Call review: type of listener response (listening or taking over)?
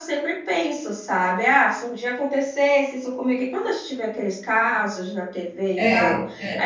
listening